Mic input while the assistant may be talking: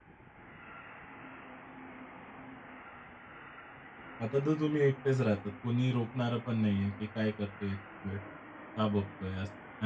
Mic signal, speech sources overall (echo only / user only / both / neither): user only